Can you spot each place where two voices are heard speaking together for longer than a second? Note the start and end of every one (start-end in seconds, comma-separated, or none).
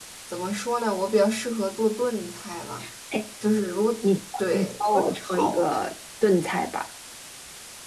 4.5-5.8